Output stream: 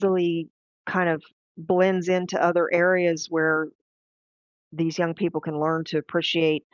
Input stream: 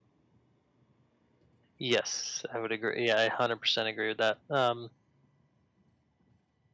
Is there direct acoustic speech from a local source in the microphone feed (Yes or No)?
Yes